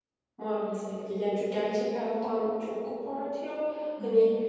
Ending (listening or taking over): listening